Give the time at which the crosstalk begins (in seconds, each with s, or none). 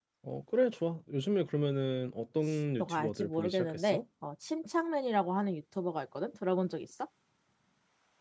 2.8 s